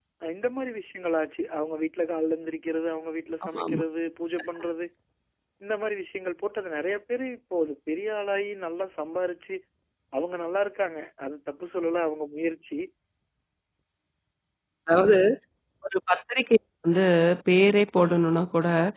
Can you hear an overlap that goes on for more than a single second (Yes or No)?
No